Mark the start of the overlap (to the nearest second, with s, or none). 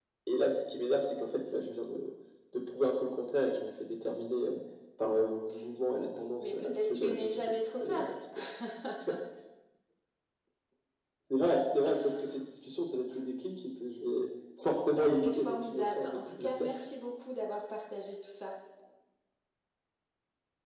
6 s